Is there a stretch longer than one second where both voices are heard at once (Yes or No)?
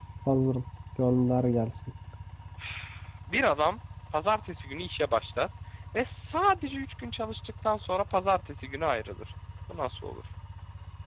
No